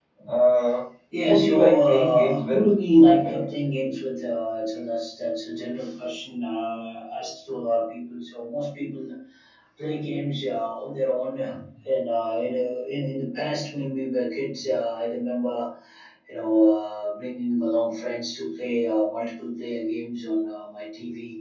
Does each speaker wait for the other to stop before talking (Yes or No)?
No